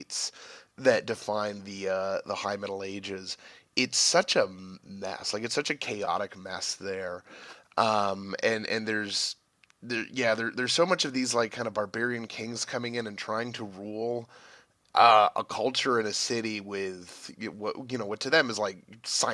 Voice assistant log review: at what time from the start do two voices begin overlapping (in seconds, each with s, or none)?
none